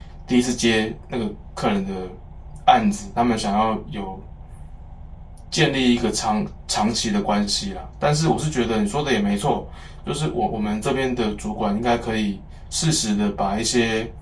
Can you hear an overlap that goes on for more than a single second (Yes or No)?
No